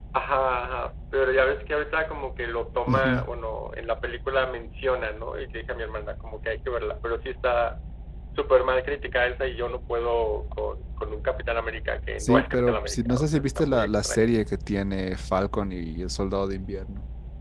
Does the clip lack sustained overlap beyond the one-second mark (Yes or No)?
No